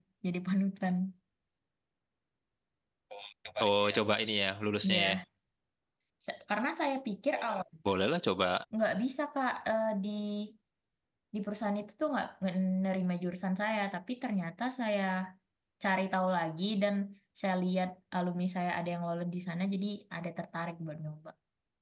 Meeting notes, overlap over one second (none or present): none